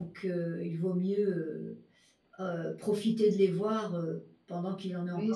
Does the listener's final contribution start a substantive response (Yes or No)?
Yes